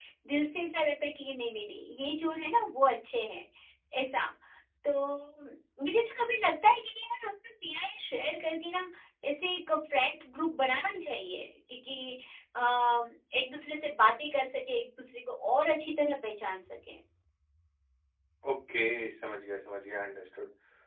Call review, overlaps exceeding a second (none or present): none